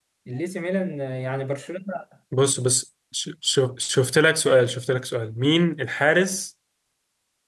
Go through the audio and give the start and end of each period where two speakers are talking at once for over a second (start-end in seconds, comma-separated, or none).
none